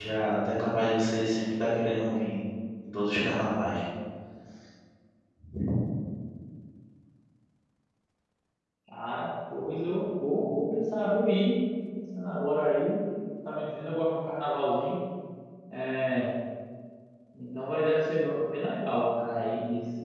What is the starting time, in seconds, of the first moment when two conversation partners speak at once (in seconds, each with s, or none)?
none